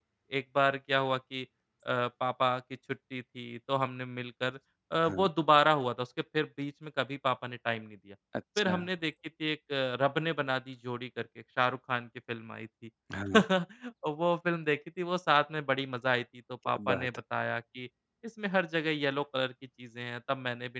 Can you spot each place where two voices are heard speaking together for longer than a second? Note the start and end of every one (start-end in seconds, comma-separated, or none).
none